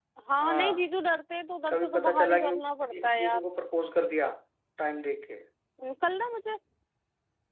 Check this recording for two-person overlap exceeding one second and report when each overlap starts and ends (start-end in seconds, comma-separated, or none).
1.7-3.5